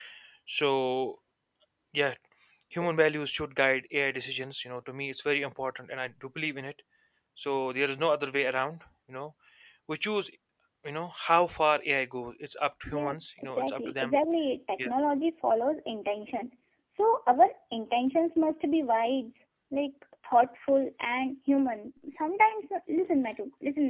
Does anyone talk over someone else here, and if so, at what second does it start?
12.9 s

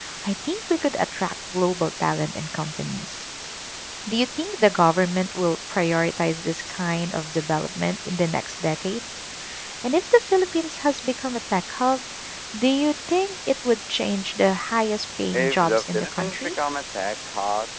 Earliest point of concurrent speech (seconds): 15.3 s

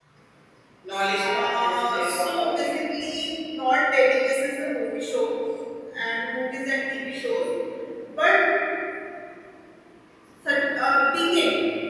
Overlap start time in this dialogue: 1.2 s

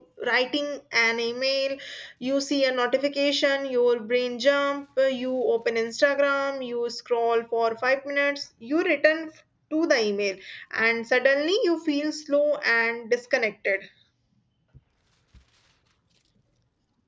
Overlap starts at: none

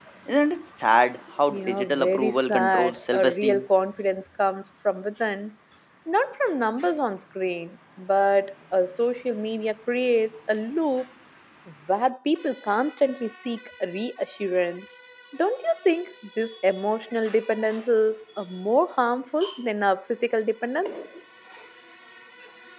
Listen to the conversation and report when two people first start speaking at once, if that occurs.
1.5 s

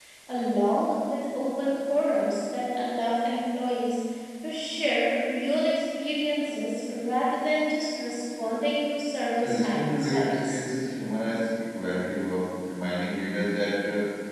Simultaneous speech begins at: 9.4 s

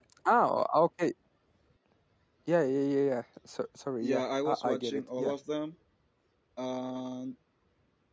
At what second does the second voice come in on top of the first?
4.0 s

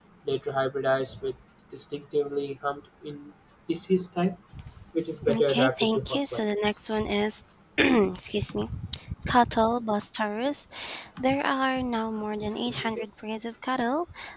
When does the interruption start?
5.3 s

